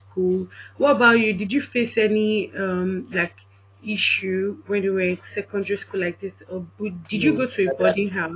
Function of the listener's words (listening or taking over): taking over